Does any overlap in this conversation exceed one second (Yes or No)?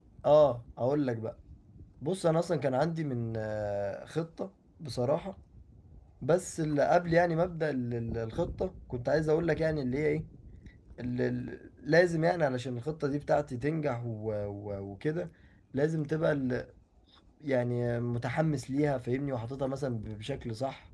No